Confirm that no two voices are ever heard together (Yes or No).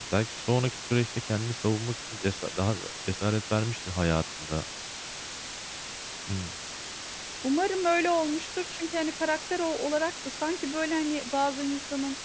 Yes